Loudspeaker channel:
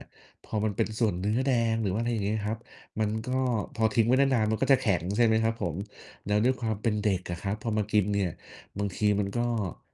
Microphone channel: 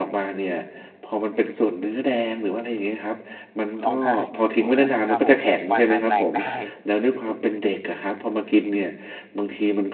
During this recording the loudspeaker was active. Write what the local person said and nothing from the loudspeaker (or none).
ร้อง ไห้ ว อา ครับผม ฟันอาจแตก ได้